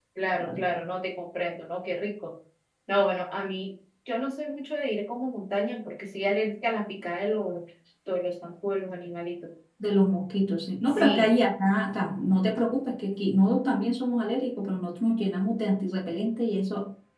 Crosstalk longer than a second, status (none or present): none